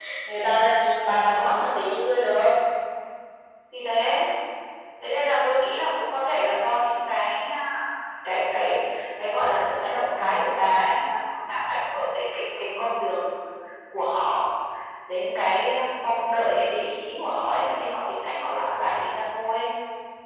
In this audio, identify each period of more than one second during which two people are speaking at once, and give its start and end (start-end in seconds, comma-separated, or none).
none